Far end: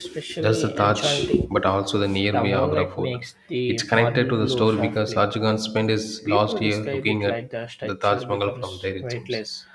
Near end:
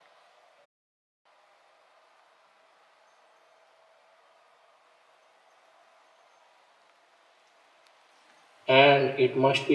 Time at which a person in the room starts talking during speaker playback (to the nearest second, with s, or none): 9 s